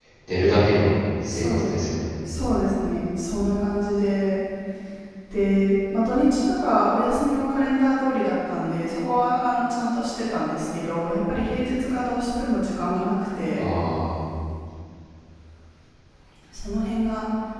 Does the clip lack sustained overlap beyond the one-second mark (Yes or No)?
Yes